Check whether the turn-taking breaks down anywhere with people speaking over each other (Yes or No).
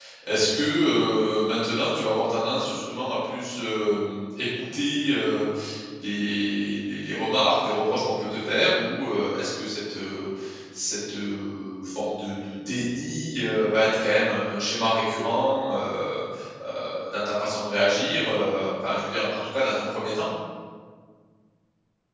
No